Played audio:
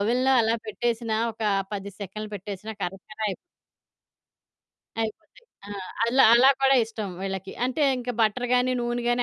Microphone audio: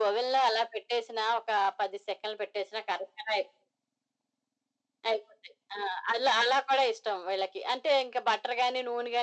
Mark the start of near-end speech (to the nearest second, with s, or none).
none